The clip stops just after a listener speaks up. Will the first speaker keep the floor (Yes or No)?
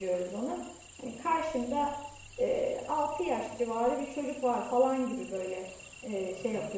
No